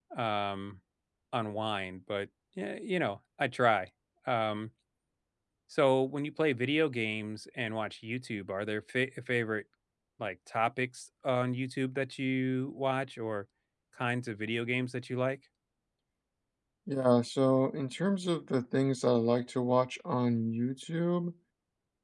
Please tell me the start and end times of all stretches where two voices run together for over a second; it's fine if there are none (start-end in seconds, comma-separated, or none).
none